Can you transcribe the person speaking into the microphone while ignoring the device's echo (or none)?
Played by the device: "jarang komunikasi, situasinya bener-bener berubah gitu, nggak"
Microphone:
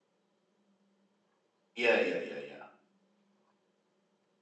Iya iya iya iya.